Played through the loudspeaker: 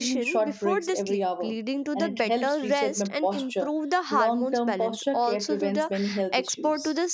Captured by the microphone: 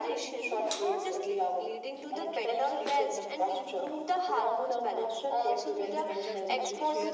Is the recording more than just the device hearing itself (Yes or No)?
Yes